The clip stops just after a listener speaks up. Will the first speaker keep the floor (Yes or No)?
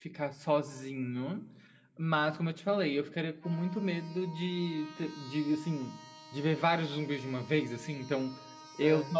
Yes